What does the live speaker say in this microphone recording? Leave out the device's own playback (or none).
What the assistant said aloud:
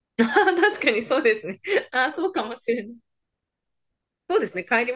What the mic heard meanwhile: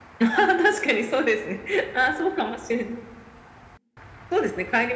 none